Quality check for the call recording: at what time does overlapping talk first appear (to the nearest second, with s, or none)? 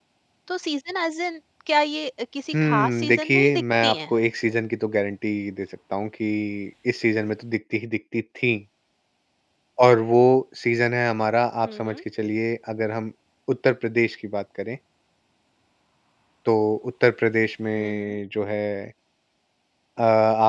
3 s